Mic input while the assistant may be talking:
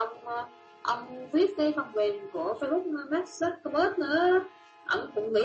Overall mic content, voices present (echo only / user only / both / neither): echo only